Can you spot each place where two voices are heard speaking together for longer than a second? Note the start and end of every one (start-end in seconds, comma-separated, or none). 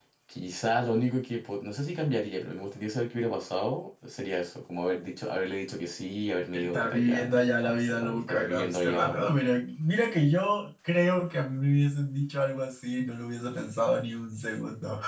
6.5-9.3